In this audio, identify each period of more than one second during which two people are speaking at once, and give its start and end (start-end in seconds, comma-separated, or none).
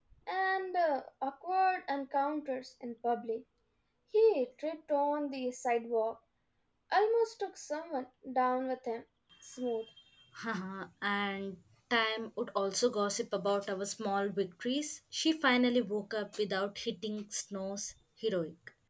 none